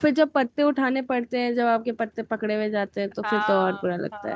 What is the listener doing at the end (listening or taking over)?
taking over